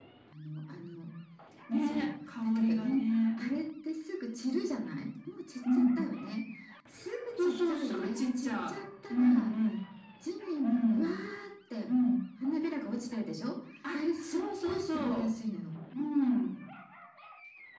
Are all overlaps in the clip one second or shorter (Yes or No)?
No